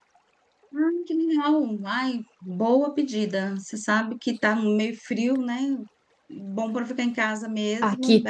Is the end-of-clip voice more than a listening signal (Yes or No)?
Yes